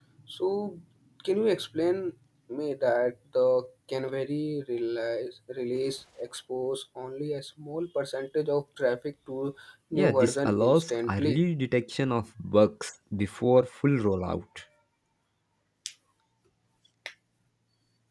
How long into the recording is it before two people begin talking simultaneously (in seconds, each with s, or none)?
9.9 s